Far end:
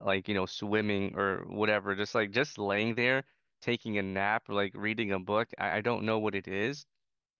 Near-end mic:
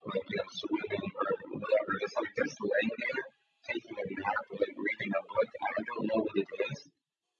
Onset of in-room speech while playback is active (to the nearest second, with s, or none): none